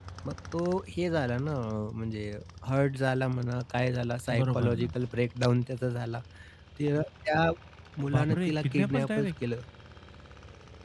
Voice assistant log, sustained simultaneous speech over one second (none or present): present